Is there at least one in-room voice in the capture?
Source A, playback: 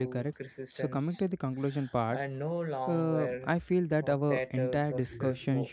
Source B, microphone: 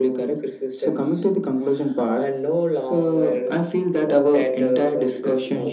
No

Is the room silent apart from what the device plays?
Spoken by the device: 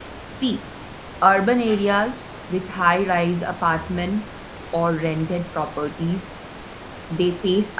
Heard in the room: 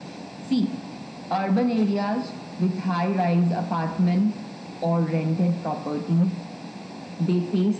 Yes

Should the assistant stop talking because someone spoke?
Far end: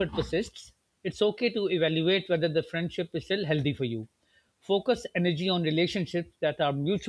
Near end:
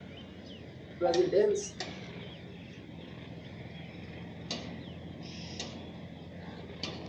Yes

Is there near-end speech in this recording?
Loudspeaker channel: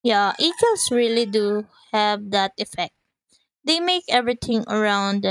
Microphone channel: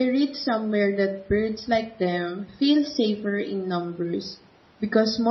Yes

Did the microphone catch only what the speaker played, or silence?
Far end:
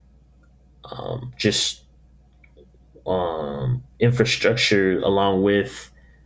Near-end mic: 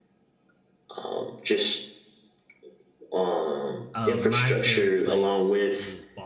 No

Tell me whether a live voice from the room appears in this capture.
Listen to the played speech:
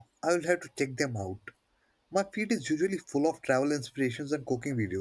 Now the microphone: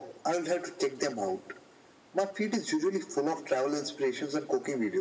No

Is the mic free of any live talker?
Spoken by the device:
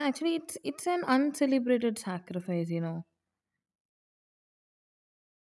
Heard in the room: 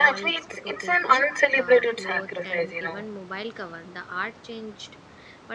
No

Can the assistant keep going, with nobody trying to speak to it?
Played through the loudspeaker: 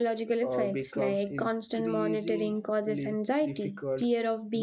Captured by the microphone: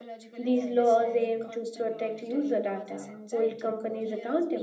No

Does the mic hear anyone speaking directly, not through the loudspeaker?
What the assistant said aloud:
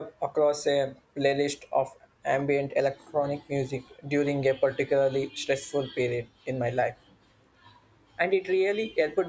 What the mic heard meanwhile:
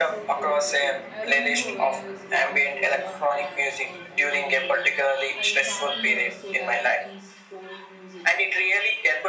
Yes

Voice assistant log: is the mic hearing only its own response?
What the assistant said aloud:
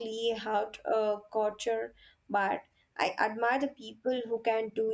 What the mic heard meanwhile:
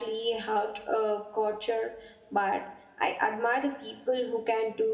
Yes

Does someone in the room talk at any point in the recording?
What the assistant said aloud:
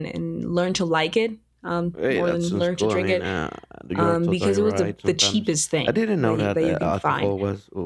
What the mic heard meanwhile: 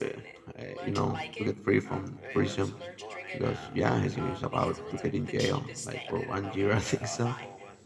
Yes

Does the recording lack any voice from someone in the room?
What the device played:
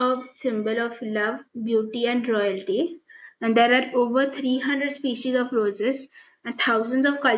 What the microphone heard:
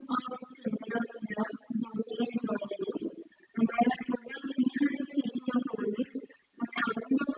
Yes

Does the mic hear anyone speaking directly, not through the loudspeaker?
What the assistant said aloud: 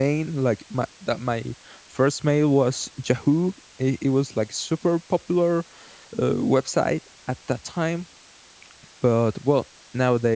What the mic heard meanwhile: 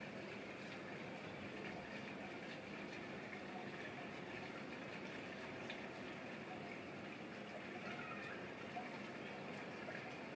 No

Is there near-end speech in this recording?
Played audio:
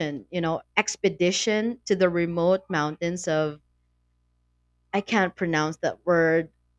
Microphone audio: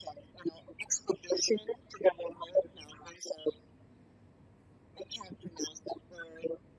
No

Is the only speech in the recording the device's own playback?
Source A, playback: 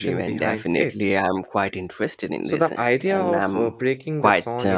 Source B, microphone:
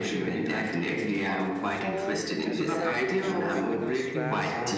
No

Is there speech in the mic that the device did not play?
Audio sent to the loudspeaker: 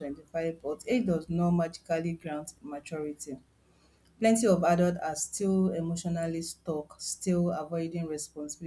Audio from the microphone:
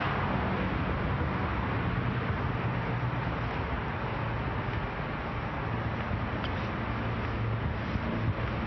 No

